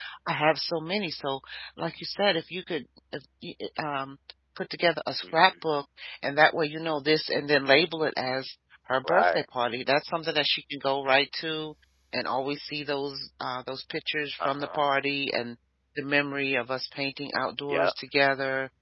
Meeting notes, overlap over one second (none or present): none